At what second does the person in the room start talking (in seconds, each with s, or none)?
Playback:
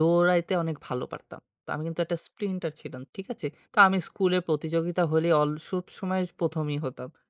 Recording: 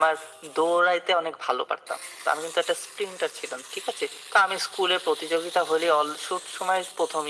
none